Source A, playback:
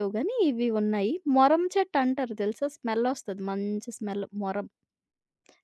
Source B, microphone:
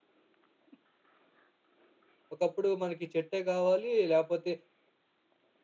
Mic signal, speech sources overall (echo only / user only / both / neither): user only